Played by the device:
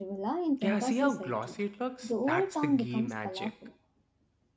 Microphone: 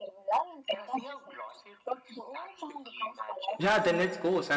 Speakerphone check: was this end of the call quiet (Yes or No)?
No